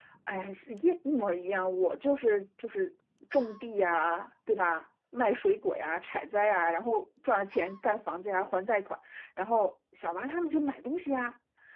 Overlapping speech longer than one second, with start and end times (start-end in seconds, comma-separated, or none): none